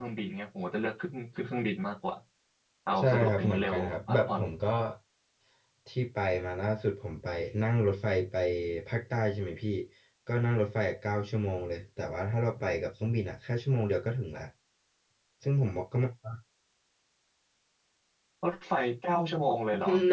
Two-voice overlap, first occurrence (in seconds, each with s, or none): 3.0 s